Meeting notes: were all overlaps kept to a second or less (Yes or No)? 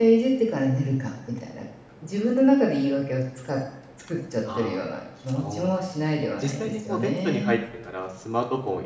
No